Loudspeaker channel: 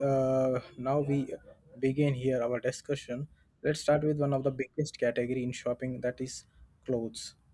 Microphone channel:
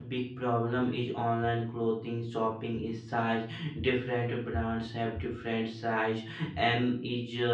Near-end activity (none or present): present